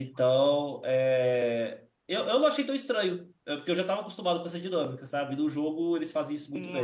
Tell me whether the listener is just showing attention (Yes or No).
No